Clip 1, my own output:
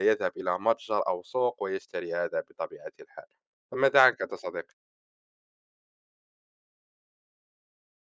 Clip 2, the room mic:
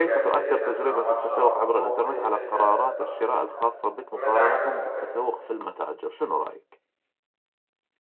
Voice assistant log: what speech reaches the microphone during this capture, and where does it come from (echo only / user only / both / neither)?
both